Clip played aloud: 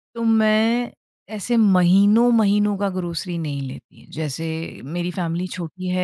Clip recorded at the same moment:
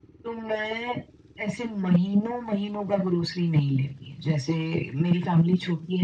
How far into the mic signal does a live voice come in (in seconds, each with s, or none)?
none